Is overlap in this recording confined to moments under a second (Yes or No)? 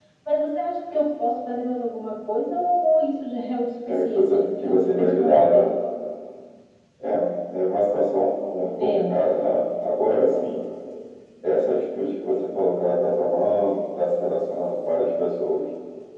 No